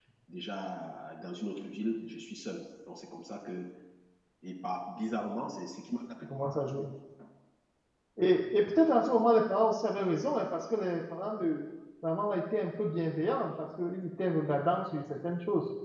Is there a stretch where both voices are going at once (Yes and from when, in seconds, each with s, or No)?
No